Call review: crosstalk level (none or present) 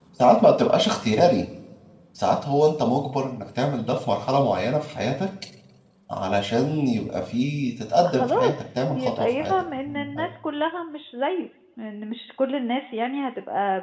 present